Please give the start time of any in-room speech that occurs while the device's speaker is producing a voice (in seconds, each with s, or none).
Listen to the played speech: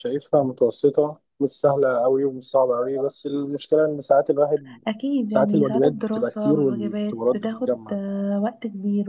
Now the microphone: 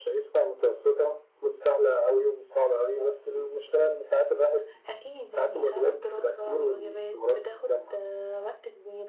none